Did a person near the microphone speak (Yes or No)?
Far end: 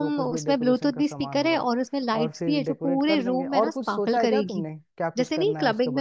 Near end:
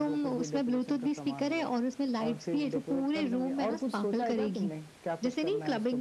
No